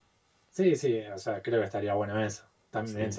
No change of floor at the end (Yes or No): Yes